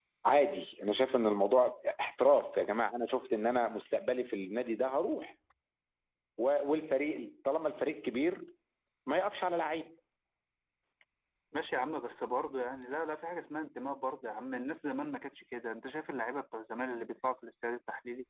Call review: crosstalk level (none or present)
none